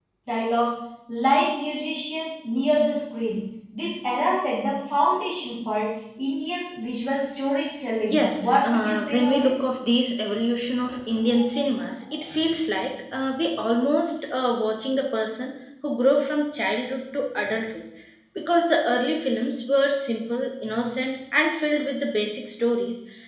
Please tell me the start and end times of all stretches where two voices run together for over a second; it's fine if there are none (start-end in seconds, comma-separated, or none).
8.1-9.7